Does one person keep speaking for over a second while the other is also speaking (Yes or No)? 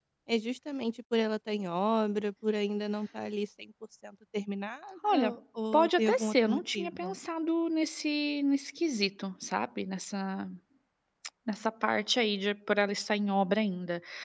Yes